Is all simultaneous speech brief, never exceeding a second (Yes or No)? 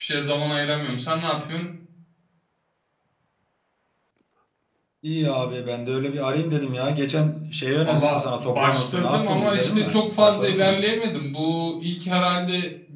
No